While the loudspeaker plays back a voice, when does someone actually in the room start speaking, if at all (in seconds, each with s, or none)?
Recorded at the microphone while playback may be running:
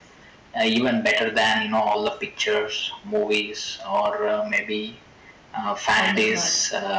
5.9 s